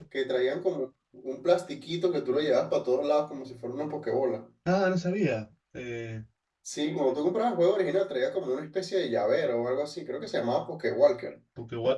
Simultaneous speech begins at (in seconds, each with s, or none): none